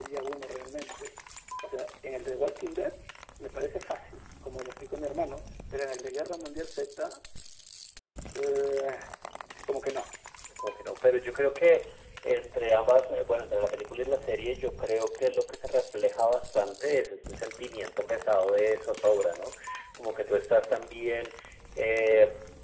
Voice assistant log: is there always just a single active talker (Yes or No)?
Yes